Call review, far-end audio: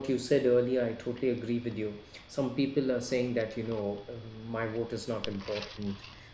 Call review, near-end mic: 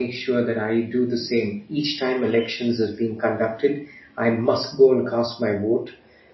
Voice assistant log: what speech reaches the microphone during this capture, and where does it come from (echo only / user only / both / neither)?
user only